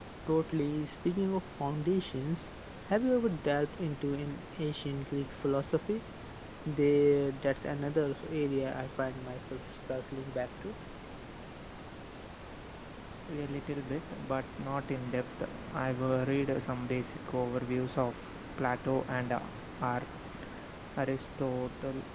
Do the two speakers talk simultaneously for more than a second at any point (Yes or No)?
No